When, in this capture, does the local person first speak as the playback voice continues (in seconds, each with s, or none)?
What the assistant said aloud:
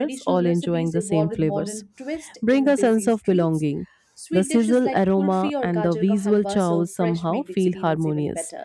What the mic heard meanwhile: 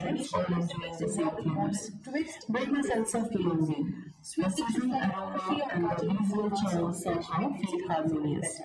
none